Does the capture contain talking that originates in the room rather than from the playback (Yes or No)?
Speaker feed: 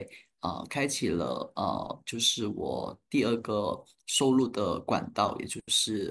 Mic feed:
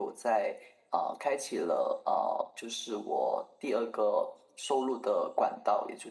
No